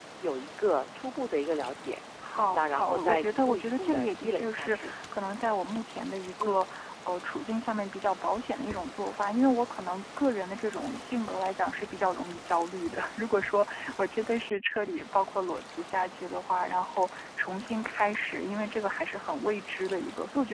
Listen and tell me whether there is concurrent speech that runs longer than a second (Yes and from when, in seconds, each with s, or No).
Yes, from 2.5 s